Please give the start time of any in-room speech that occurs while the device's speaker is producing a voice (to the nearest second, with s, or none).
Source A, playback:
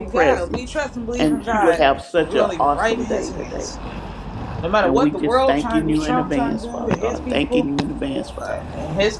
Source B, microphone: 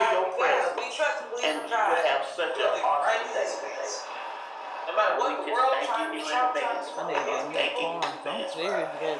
7 s